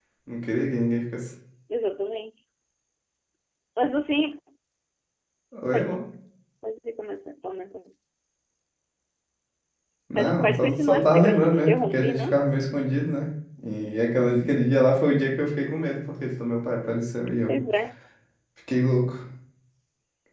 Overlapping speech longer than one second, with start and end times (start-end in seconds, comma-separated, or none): 10.2-12.4